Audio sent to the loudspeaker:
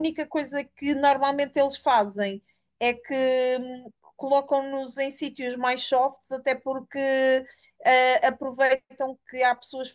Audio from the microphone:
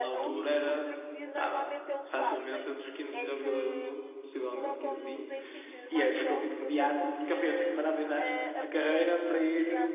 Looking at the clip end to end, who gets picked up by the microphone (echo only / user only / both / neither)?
both